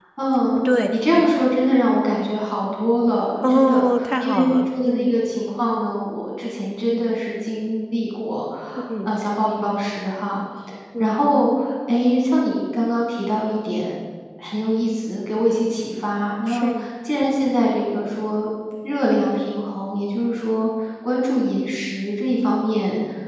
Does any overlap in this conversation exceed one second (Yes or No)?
Yes